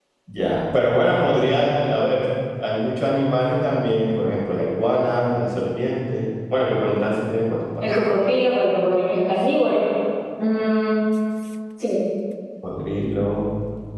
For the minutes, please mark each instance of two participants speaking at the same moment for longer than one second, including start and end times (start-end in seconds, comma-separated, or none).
none